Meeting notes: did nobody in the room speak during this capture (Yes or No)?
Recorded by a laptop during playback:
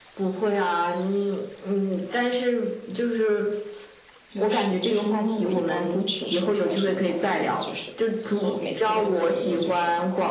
Yes